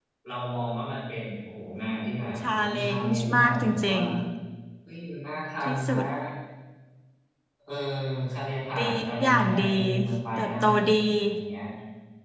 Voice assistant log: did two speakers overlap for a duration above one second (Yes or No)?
Yes